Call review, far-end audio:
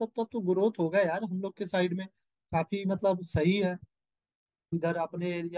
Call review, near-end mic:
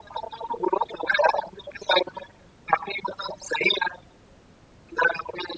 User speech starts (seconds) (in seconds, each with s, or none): none